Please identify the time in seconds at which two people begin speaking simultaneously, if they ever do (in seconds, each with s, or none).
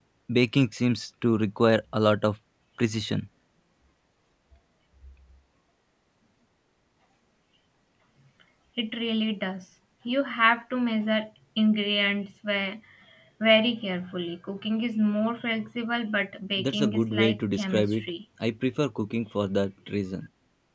16.6 s